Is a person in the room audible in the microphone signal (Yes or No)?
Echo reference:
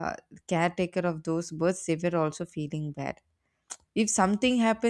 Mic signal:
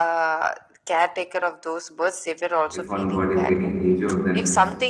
Yes